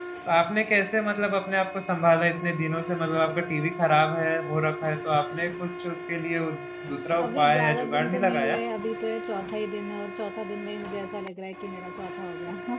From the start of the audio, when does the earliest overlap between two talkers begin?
7.2 s

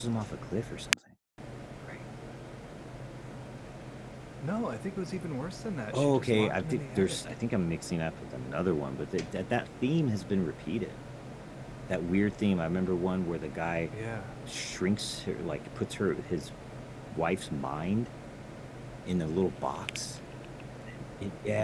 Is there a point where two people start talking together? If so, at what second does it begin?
5.9 s

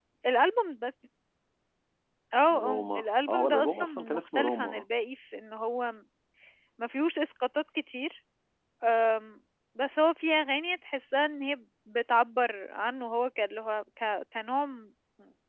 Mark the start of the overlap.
2.5 s

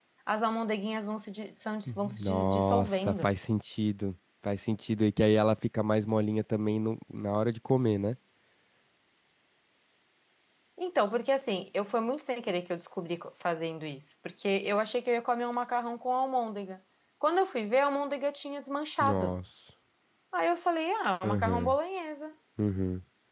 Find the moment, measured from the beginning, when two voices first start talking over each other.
1.9 s

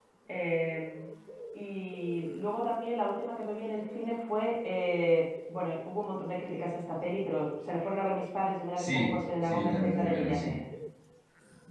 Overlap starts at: 8.8 s

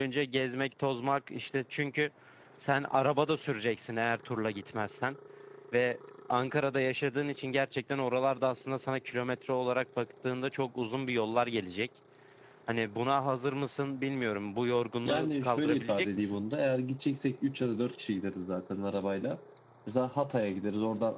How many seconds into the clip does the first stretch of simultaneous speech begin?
15.1 s

